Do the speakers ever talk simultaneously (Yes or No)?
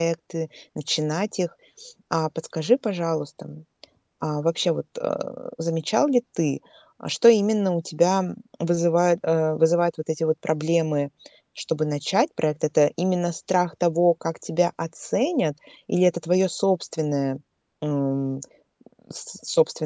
No